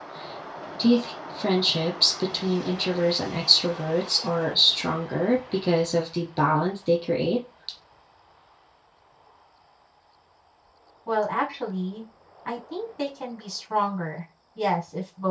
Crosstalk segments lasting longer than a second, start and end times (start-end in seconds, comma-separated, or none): none